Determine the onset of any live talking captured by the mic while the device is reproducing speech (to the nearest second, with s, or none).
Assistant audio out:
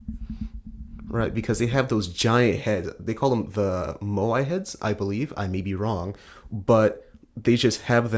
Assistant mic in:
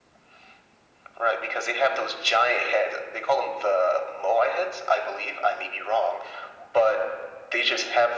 none